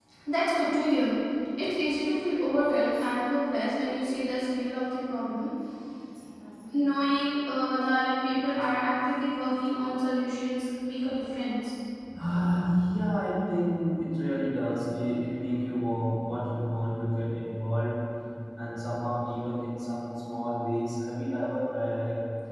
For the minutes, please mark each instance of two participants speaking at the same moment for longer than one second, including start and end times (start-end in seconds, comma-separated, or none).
none